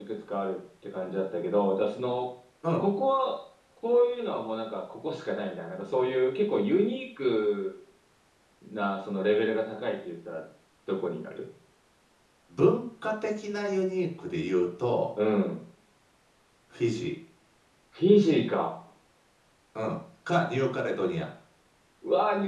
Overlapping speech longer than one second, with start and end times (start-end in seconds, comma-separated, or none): none